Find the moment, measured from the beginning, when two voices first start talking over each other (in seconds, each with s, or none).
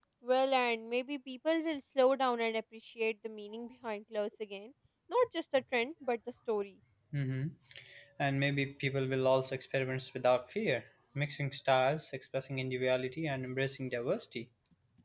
none